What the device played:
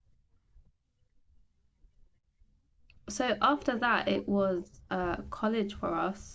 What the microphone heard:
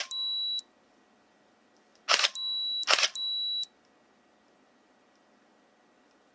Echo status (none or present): none